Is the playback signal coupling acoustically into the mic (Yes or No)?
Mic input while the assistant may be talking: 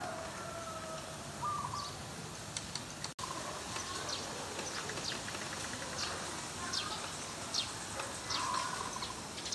No